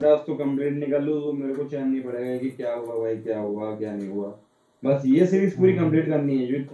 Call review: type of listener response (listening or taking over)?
listening